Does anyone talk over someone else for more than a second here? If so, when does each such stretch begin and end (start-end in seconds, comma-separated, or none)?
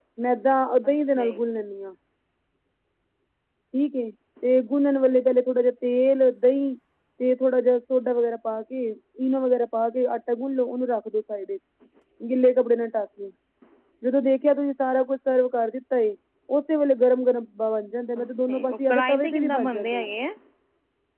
18.2-20.1